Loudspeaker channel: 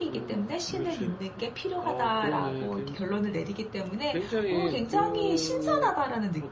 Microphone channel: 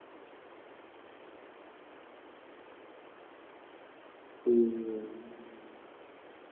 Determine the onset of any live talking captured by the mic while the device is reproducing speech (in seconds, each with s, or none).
4.5 s